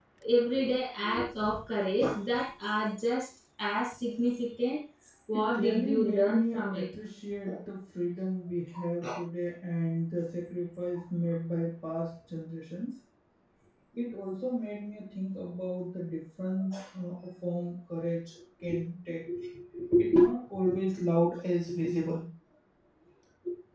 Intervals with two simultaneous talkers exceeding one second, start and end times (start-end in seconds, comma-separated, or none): 5.3-6.8